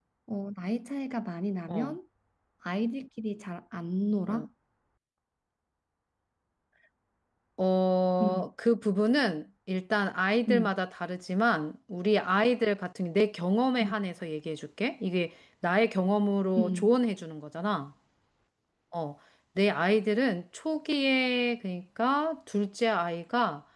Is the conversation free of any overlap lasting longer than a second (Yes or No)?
Yes